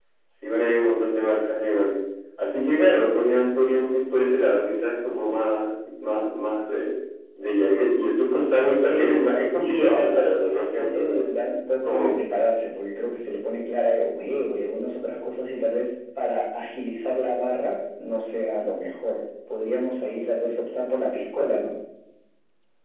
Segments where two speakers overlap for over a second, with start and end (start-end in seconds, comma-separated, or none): 8.9-11.3